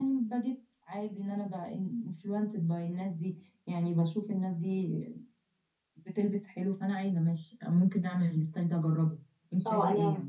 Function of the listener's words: taking over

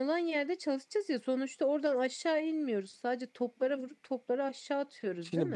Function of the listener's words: taking over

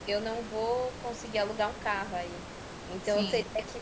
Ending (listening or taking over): listening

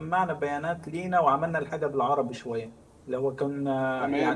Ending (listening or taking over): taking over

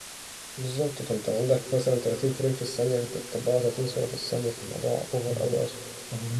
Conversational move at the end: taking over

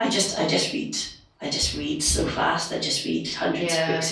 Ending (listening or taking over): taking over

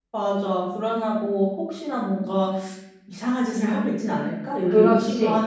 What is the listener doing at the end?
taking over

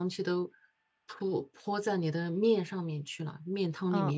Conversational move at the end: taking over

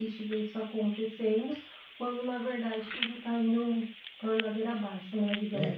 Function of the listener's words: taking over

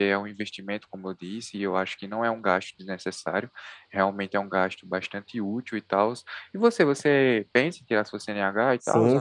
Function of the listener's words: taking over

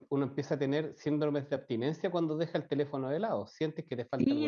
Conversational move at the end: taking over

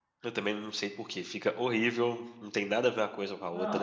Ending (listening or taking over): taking over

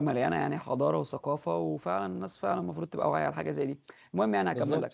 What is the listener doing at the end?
listening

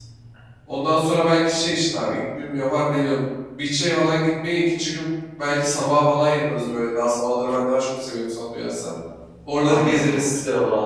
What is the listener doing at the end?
taking over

